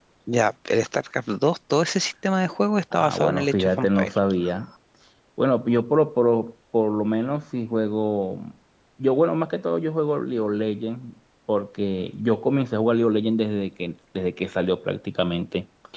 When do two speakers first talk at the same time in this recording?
2.9 s

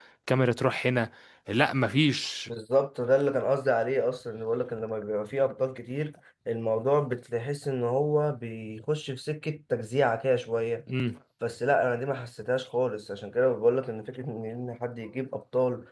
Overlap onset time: none

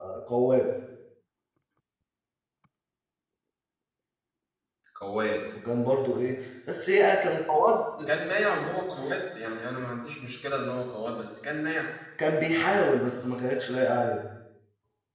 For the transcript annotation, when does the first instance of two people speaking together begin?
none

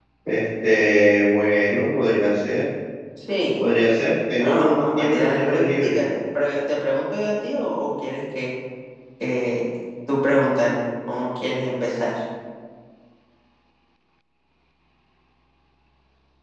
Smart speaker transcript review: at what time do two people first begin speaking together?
4.4 s

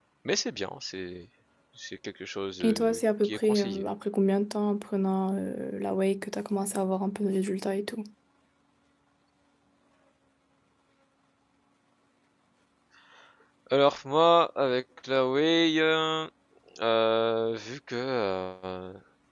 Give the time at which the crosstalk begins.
2.6 s

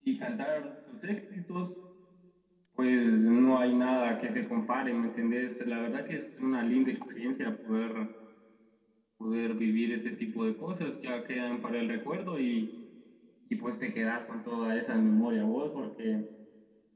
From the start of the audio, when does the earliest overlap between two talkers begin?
none

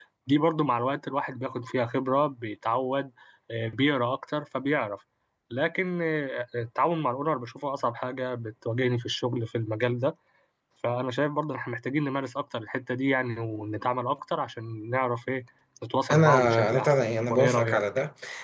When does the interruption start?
16.1 s

